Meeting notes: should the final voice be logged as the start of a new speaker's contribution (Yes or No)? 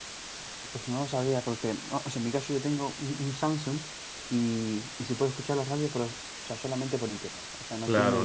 Yes